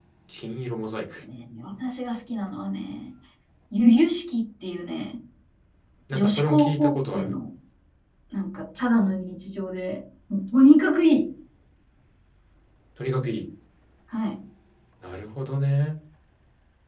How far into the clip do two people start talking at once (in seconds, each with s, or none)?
6.1 s